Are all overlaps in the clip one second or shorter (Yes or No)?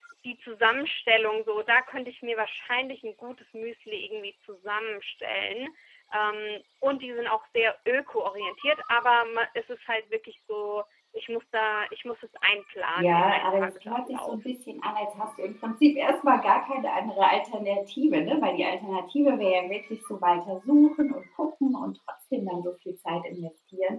No